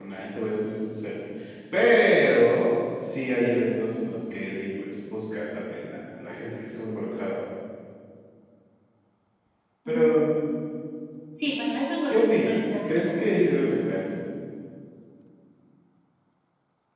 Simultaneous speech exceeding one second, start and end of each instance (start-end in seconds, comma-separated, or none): 12.1-13.4